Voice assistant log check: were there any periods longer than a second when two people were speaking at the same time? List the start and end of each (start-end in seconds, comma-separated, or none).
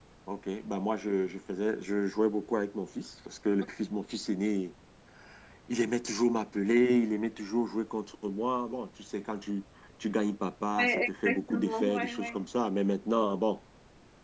10.8-12.3